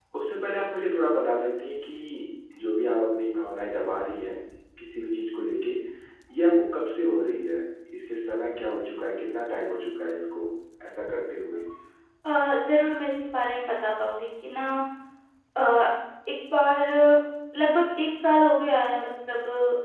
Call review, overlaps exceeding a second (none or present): none